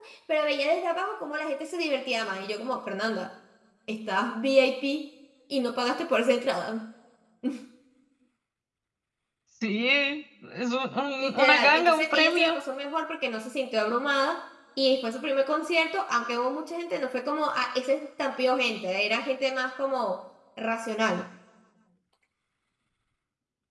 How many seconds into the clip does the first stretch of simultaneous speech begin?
11.2 s

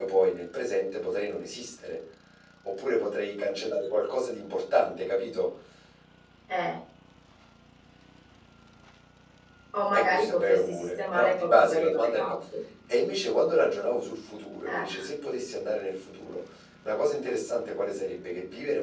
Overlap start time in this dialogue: 9.9 s

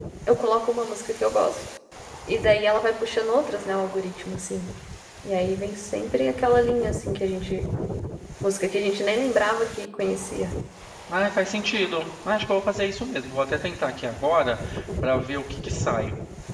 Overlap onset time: none

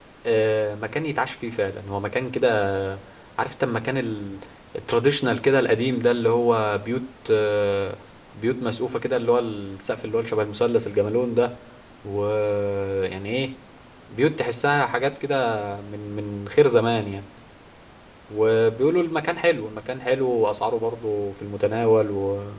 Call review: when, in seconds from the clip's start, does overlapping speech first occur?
none

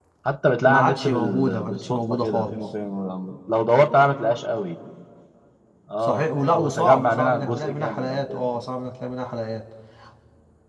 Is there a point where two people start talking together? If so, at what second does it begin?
0.7 s

